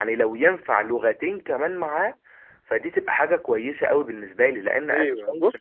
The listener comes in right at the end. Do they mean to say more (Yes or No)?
Yes